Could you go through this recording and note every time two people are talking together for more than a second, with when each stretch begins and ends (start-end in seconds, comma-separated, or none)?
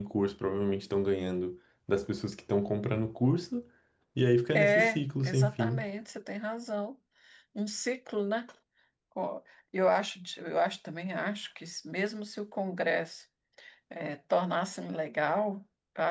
4.5-5.8